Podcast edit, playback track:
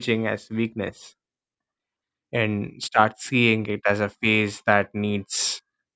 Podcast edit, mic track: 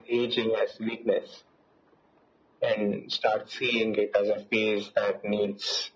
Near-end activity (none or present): none